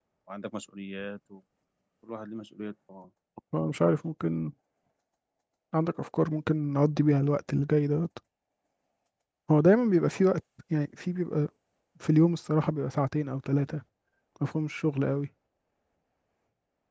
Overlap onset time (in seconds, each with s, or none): none